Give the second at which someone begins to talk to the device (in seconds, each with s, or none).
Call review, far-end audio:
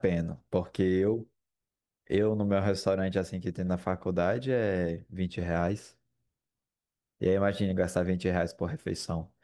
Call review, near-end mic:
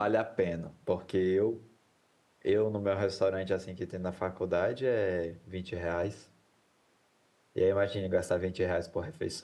none